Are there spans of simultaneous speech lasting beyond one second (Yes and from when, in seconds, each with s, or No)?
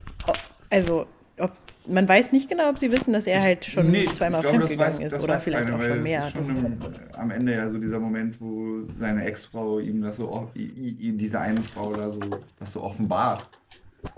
Yes, from 3.3 s